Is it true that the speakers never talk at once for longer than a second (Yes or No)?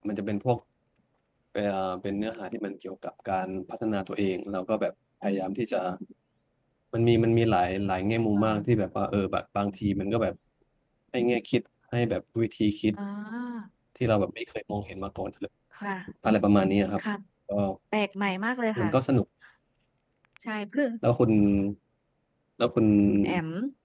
Yes